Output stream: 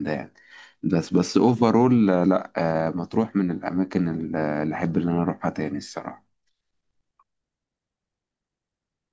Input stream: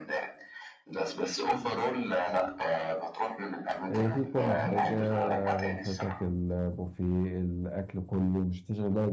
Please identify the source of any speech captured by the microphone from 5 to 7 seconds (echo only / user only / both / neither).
both